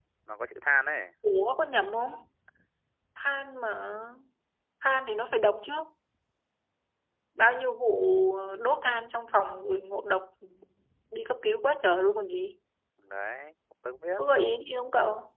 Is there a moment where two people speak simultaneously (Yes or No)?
No